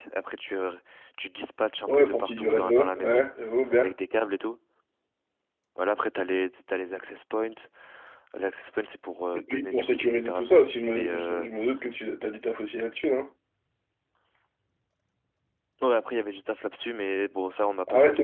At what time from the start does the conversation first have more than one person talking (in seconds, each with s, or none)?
1.9 s